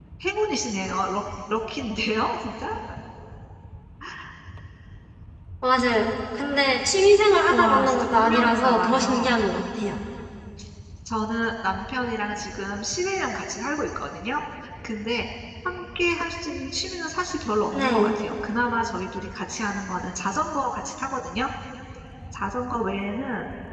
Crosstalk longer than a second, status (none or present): present